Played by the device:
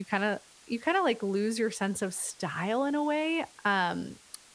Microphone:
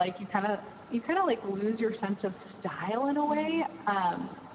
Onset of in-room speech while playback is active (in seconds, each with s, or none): 3.3 s